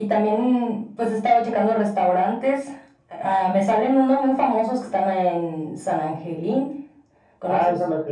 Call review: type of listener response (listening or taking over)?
taking over